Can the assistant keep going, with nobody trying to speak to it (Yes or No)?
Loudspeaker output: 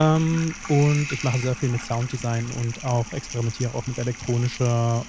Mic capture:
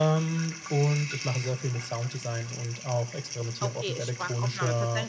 No